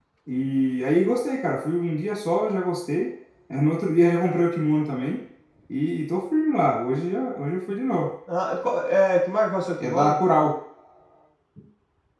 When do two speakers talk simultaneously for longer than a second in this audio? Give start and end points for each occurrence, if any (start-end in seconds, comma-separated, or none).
none